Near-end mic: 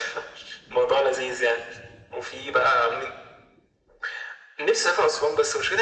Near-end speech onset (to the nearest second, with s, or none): none